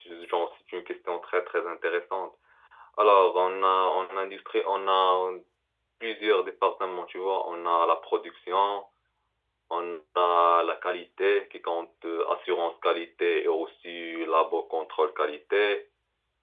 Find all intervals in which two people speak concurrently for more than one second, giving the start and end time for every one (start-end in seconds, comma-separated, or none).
none